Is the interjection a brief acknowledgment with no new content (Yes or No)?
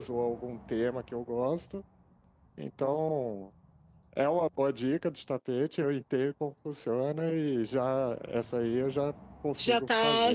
No